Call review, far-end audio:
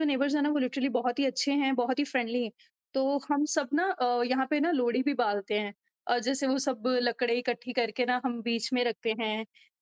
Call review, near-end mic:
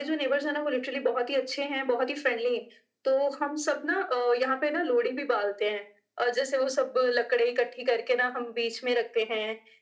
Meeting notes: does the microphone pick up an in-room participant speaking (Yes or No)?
No